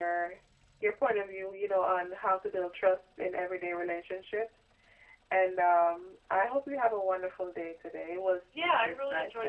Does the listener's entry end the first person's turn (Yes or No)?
Yes